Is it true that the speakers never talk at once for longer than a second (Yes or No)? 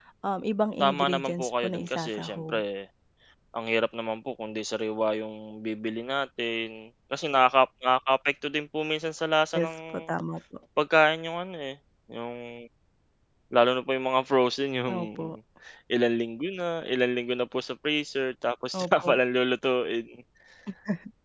No